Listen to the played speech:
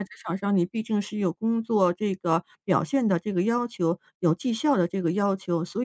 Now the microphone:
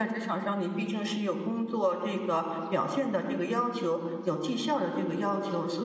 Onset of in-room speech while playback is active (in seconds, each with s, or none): none